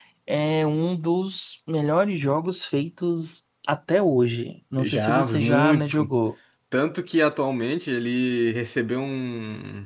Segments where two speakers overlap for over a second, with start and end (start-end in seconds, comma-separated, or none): 4.8-6.1